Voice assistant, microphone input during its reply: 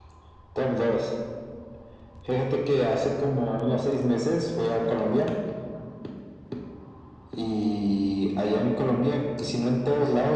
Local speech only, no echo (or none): none